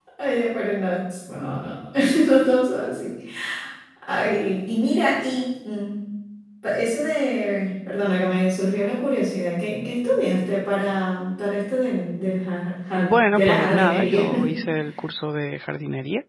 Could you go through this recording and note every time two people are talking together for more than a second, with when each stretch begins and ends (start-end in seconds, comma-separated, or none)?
12.9-14.2